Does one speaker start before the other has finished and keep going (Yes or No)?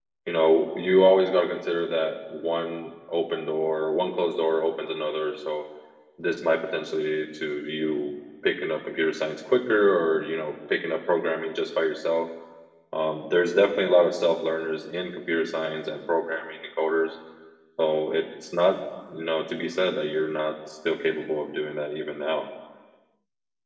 No